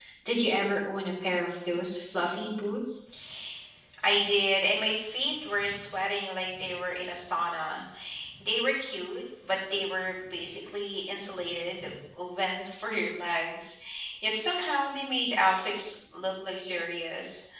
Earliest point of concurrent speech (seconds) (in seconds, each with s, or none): none